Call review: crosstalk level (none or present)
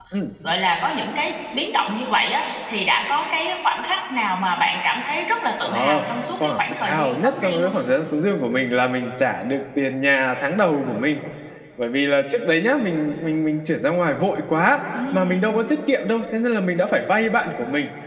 present